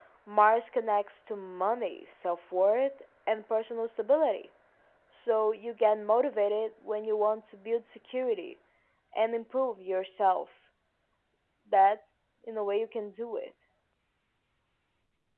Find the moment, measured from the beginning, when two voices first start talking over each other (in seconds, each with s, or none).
none